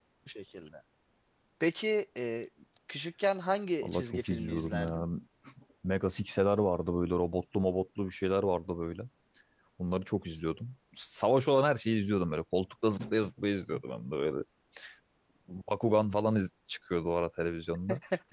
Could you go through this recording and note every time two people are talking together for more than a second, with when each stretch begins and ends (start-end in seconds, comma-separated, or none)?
3.8-5.0